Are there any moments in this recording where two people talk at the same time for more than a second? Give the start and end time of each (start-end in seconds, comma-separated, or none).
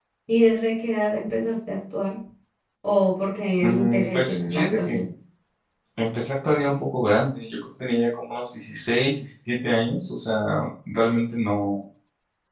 3.6-5.0